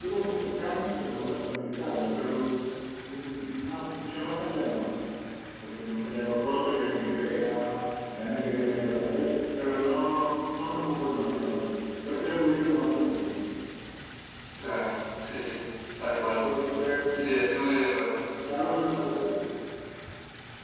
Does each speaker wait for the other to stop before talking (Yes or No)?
Yes